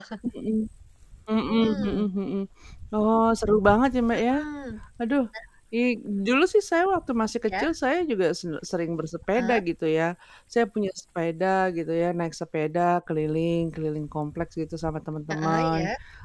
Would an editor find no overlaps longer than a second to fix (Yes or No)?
Yes